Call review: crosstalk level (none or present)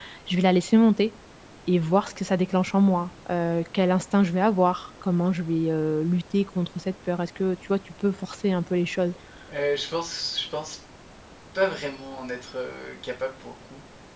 none